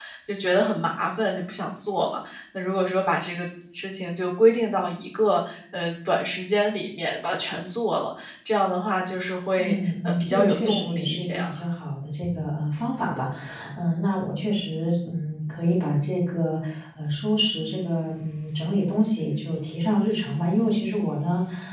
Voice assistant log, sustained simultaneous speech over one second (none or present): present